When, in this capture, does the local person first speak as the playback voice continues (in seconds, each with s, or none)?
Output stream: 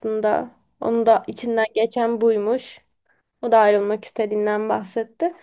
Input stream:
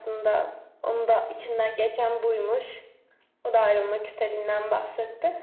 none